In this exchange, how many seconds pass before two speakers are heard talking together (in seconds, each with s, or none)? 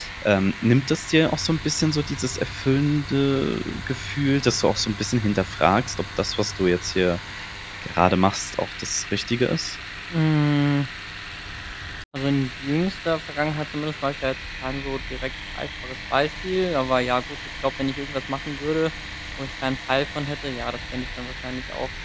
none